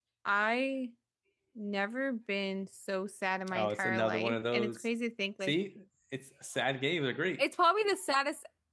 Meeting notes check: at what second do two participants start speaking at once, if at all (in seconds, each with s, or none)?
3.5 s